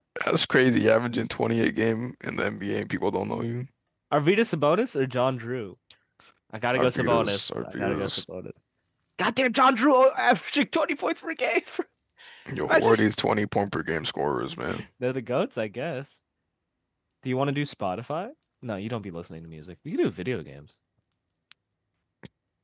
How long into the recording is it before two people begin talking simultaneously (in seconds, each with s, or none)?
6.8 s